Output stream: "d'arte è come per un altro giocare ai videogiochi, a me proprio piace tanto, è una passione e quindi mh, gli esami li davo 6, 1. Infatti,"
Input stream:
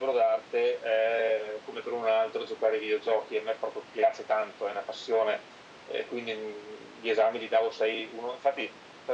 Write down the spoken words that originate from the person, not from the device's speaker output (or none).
none